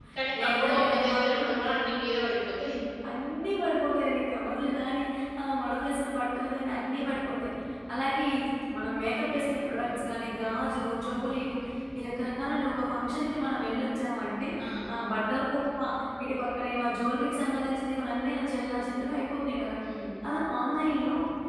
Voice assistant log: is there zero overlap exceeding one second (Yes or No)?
No